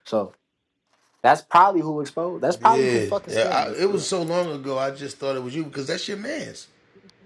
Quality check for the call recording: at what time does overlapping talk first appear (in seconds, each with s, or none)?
2.5 s